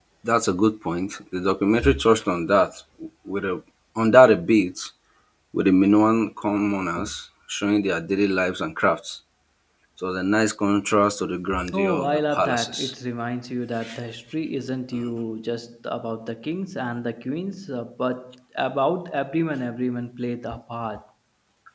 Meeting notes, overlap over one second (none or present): present